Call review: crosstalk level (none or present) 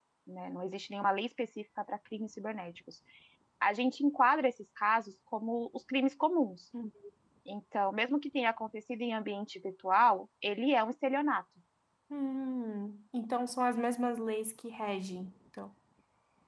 none